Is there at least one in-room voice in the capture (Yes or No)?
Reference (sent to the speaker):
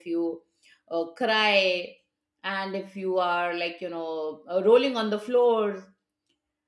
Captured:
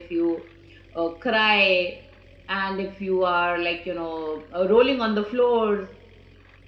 No